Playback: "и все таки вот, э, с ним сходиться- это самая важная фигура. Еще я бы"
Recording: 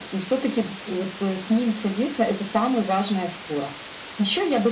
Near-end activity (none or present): none